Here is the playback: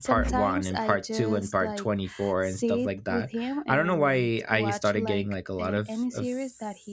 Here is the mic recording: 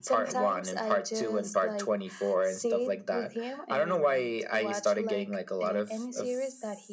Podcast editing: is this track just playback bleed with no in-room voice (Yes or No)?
Yes